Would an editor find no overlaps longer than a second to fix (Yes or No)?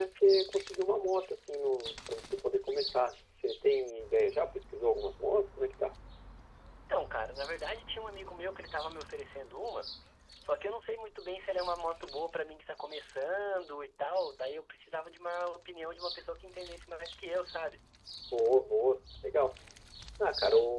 Yes